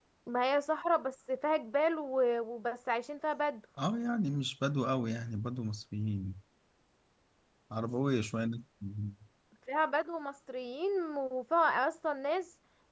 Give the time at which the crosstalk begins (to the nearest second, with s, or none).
none